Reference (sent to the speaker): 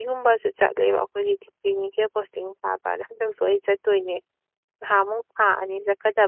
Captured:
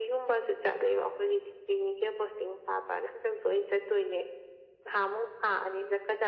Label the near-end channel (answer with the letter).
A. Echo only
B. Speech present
A